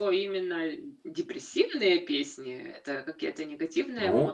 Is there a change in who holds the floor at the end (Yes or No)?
Yes